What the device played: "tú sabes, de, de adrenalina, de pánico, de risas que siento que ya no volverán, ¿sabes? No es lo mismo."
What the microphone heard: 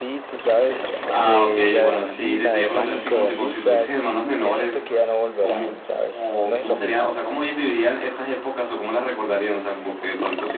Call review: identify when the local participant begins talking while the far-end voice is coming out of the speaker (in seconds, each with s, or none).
1.1 s